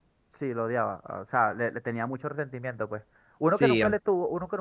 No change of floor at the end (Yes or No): Yes